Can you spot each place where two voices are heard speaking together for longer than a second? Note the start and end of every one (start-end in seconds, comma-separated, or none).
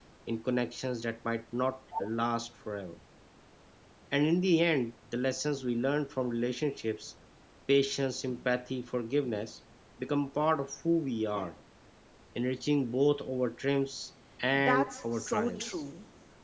14.5-15.8